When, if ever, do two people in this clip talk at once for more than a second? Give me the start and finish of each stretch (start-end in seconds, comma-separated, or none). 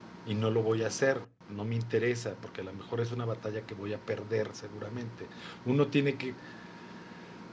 none